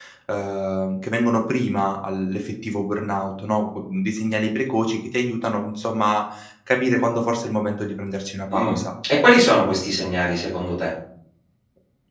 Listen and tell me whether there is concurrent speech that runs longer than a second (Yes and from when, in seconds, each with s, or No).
No